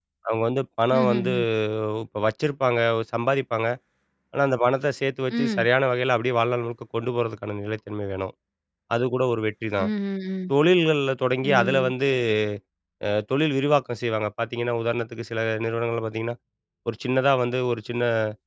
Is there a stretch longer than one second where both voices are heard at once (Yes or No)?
No